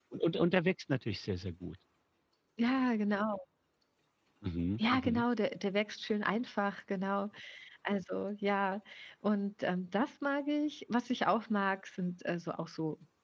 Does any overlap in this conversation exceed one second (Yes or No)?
No